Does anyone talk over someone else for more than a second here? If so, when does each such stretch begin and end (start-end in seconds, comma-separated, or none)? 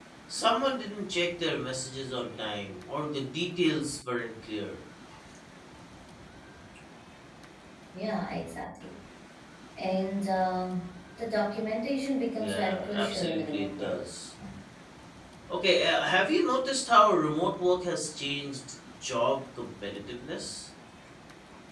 12.4-14.0